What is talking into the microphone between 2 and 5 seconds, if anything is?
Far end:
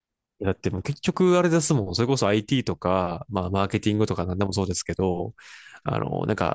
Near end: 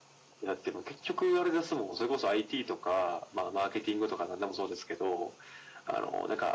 echo only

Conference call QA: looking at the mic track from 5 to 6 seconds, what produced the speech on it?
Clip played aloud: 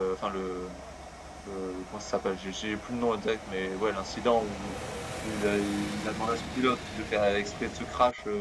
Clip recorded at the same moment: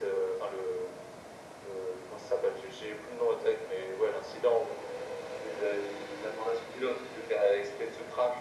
echo only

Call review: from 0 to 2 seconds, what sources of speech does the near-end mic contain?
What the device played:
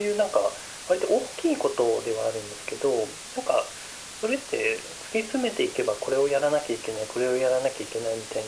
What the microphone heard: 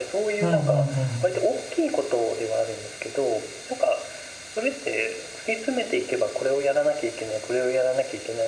both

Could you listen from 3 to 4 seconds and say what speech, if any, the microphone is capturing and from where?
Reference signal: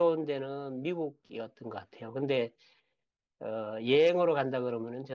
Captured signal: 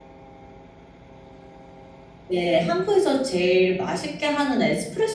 user only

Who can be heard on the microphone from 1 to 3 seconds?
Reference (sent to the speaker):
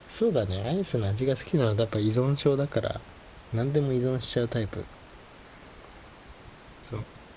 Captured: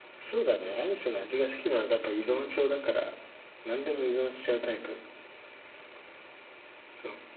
echo only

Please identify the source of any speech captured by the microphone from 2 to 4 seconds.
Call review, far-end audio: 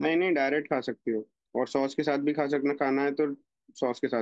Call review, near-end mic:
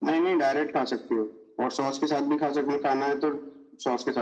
echo only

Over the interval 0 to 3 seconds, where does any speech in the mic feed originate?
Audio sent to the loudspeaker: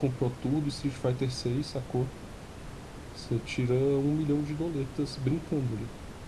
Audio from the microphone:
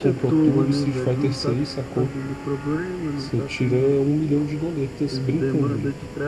both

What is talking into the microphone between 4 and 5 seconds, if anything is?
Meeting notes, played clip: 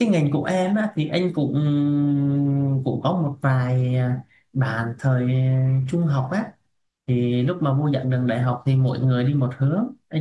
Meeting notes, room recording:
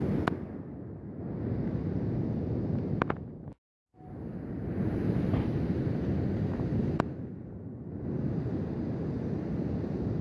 neither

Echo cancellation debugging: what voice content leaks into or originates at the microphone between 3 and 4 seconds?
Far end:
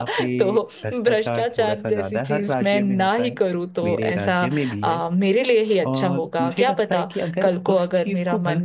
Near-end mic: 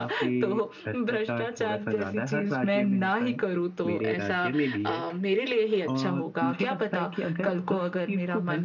echo only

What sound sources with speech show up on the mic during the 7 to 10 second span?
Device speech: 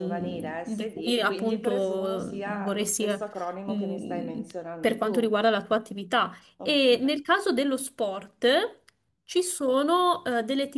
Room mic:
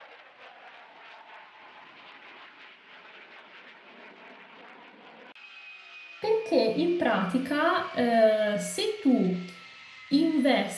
user only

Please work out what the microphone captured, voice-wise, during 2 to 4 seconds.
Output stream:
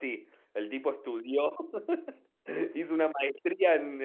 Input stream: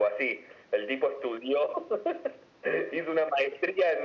echo only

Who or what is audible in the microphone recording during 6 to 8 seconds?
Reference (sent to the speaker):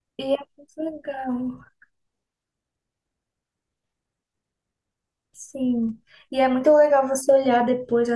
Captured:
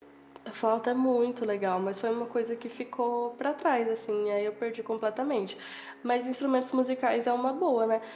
user only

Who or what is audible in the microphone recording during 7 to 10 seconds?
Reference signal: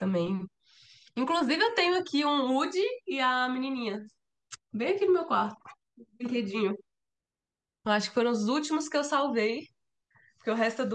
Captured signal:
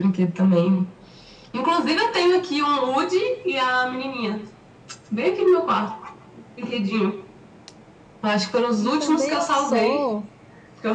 both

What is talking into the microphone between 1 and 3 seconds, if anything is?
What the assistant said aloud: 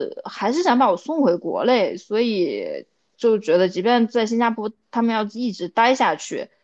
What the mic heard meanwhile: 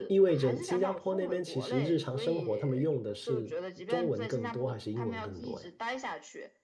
both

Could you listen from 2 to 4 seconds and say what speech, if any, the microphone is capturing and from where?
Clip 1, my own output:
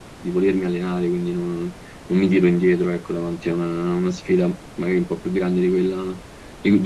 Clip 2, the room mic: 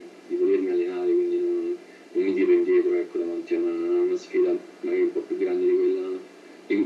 echo only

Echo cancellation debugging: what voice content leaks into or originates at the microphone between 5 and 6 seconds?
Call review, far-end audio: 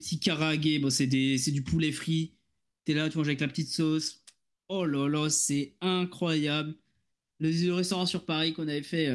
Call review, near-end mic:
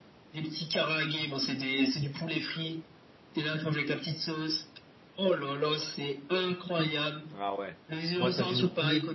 echo only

